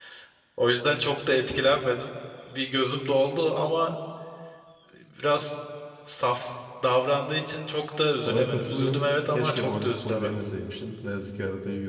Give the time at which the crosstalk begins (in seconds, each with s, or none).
8.2 s